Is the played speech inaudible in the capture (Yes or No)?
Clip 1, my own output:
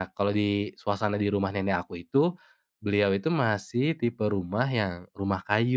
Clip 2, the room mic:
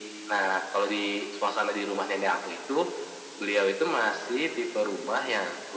No